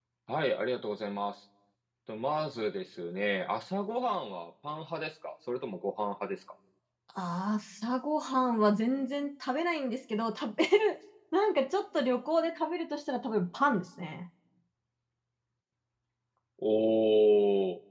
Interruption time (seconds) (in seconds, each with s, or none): none